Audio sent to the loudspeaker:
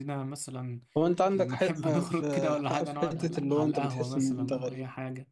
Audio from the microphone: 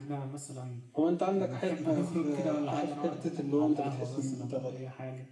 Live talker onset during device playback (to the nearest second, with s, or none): none